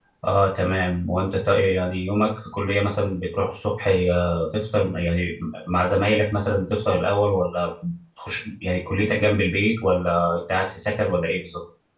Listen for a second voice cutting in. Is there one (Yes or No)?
No